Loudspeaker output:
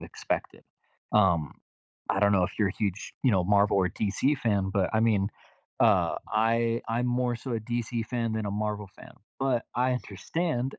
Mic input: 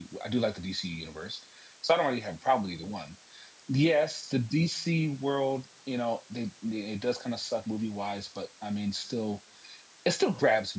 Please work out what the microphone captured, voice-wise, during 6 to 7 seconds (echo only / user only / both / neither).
user only